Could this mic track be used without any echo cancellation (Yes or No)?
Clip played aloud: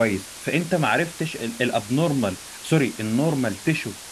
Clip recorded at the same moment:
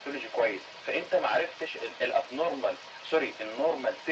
No